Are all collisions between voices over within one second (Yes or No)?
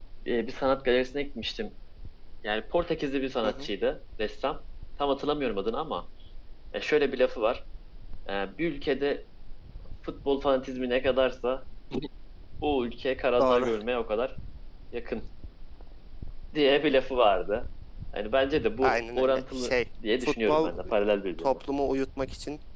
No